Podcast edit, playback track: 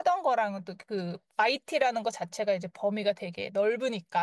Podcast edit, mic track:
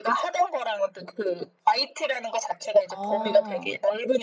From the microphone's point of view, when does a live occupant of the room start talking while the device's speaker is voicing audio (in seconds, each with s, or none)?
2.9 s